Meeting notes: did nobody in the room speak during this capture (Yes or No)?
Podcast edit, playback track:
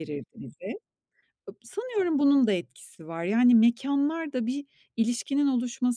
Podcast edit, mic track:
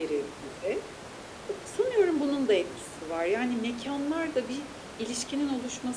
Yes